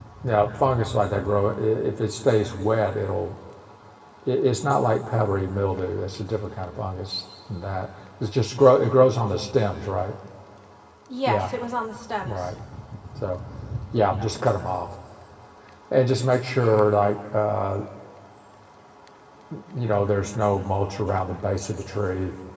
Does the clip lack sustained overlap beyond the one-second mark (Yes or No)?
Yes